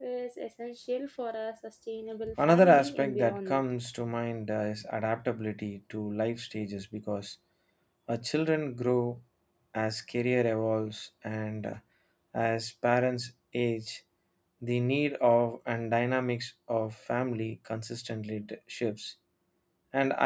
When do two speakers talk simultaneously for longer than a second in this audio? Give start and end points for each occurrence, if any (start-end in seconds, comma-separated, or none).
2.4-3.6